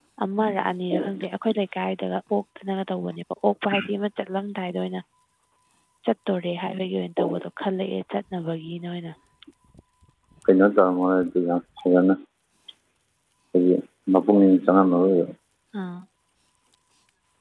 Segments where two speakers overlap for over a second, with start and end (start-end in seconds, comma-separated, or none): none